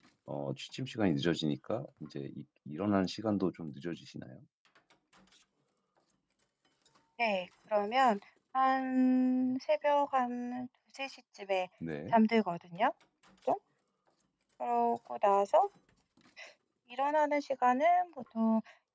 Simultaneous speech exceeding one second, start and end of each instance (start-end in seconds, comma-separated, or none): none